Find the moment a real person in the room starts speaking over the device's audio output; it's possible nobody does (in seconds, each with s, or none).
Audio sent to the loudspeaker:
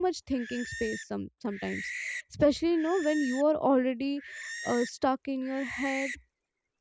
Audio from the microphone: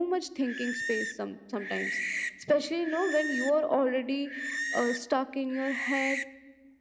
none